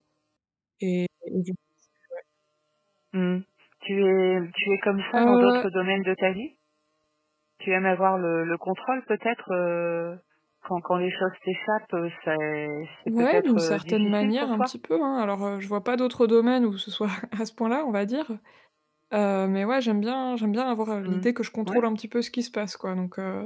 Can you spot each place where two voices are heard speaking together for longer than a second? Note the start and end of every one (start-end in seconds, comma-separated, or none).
13.1-14.7